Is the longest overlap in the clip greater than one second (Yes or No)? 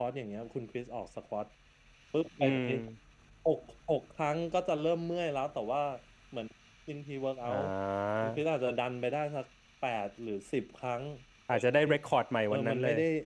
No